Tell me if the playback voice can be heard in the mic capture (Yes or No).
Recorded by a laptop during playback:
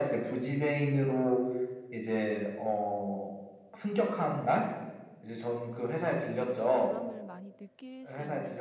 Yes